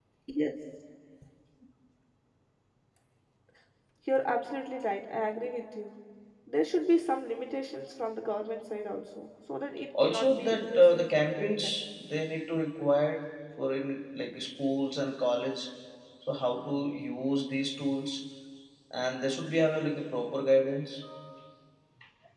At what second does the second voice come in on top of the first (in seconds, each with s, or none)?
9.9 s